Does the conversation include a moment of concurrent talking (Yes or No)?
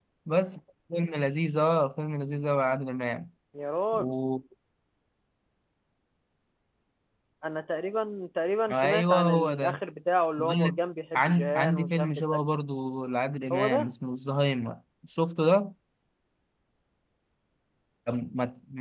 Yes